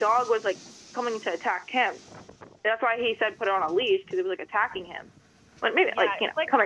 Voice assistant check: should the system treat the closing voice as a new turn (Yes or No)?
Yes